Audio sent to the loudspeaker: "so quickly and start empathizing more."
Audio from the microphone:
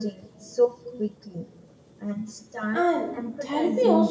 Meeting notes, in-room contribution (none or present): present